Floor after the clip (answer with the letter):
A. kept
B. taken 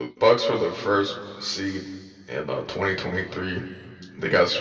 A